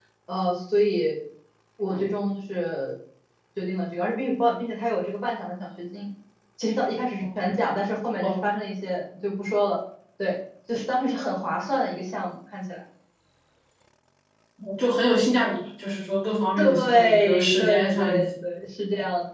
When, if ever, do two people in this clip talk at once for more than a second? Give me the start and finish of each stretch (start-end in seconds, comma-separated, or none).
16.6-18.3